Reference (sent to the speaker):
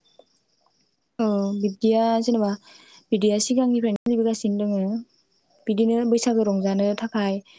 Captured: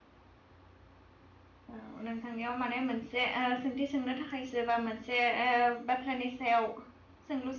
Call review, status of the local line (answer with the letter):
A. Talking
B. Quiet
A